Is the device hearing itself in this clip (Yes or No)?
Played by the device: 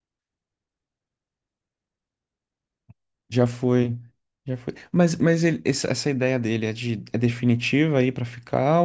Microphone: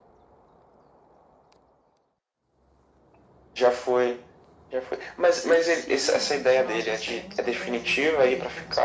Yes